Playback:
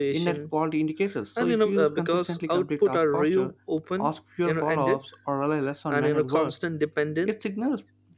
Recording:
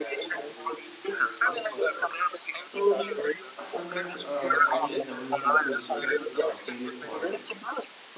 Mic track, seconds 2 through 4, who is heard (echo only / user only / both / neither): both